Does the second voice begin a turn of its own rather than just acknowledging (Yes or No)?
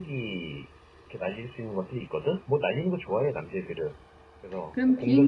Yes